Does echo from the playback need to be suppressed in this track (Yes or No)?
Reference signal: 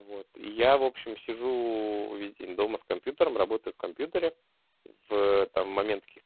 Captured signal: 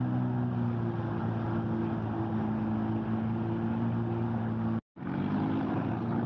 No